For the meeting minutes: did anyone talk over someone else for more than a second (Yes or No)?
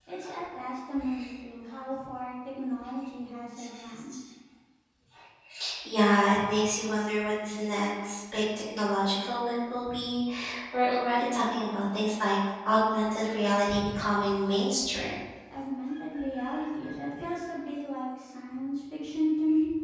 No